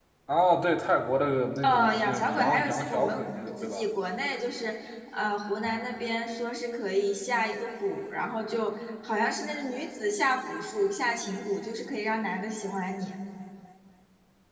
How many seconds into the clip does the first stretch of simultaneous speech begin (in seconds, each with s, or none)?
1.6 s